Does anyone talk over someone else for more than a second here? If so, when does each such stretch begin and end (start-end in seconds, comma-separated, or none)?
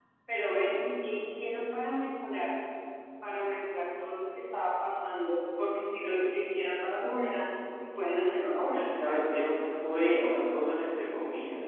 none